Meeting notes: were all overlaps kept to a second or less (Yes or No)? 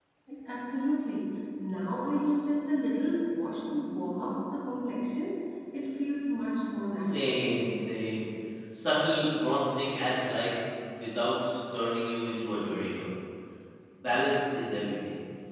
Yes